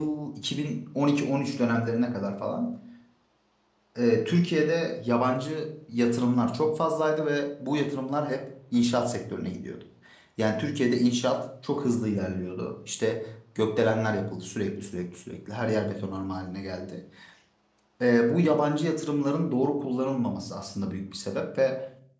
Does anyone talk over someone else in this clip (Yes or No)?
No